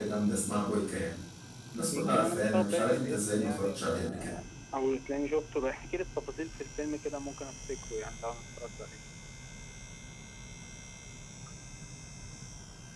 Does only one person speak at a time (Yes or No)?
No